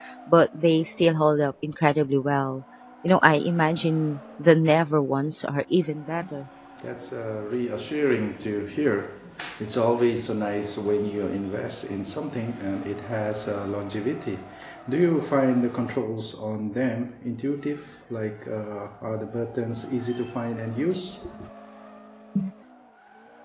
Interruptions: none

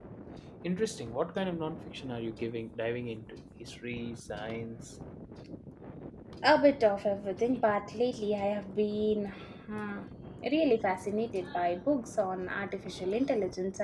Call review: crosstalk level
none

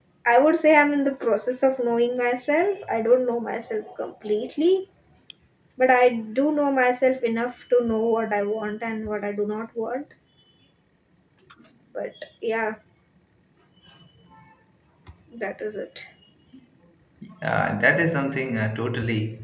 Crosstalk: none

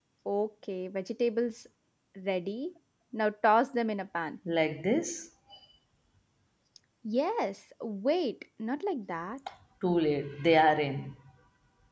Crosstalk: none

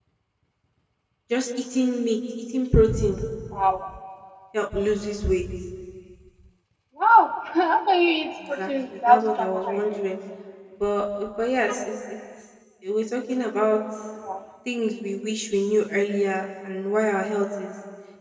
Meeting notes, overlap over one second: present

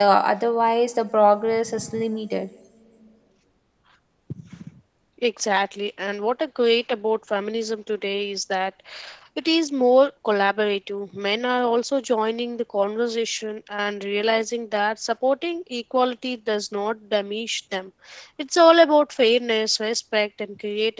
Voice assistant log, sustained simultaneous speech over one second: none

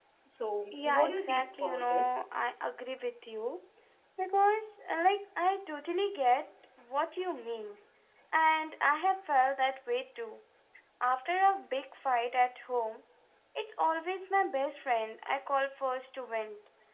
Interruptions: present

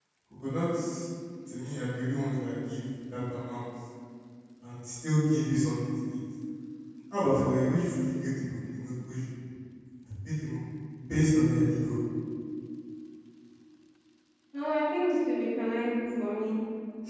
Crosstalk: none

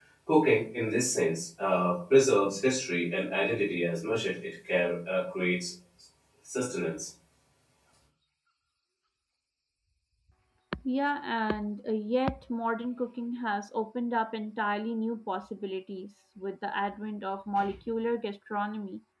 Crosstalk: none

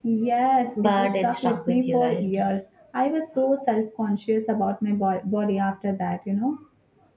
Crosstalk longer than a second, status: present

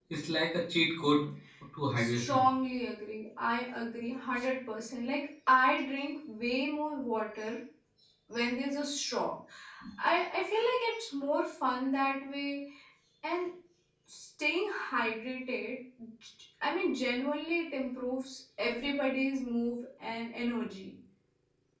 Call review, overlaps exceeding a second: none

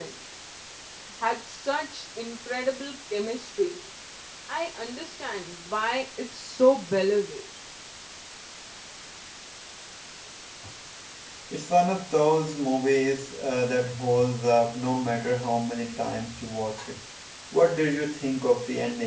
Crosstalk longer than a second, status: none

